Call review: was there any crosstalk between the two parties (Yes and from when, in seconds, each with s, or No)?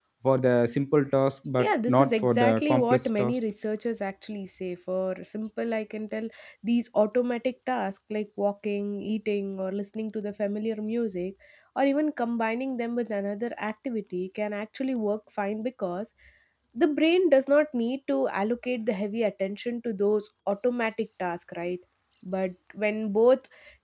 Yes, from 1.6 s